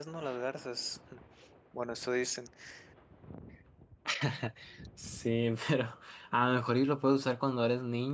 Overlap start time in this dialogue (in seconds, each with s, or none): none